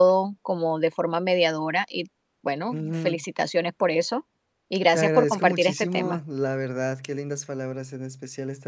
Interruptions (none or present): present